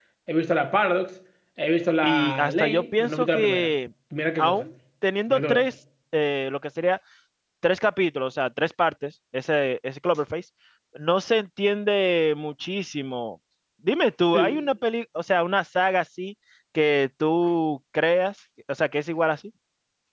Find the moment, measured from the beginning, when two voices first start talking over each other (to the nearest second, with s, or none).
2 s